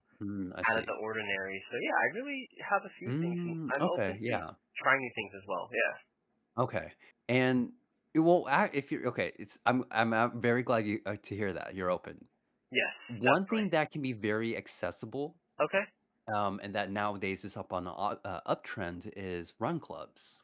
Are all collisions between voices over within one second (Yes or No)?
No